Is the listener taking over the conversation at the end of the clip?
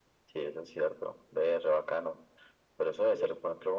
No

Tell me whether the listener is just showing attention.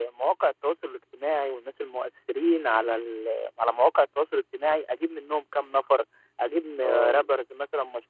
Yes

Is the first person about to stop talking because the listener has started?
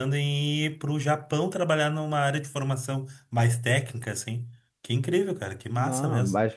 Yes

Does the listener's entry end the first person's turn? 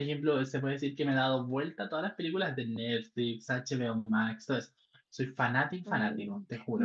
Yes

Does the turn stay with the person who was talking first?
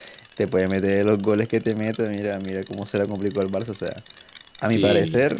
Yes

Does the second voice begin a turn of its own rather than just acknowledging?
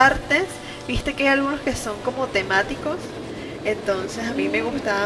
No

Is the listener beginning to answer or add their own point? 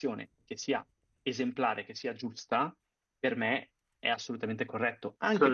No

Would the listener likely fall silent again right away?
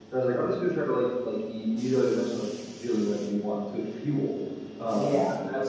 Yes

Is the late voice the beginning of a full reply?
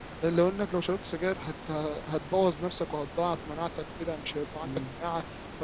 No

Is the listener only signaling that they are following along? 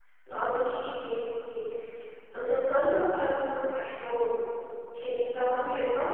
Yes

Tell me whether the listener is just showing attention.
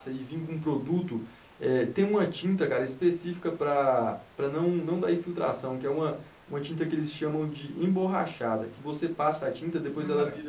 Yes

